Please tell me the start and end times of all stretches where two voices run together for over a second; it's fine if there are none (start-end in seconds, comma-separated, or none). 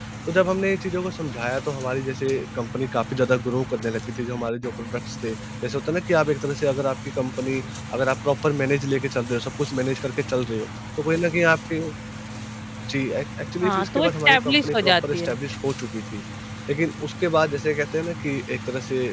13.6-15.3